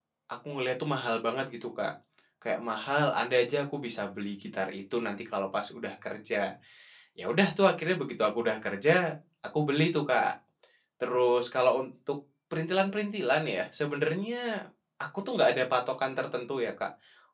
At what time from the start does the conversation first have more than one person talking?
none

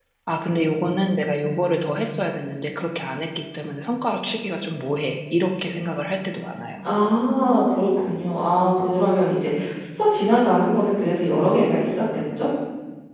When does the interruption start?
none

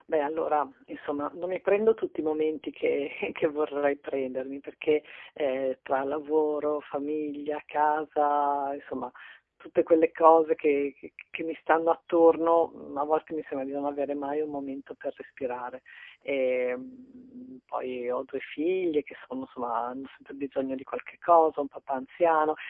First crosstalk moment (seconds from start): none

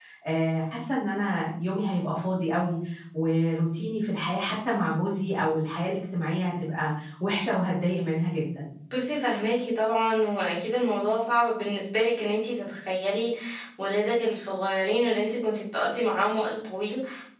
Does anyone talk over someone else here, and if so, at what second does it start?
none

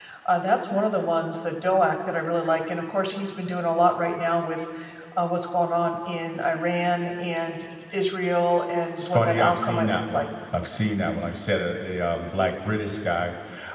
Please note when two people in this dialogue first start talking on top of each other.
9 s

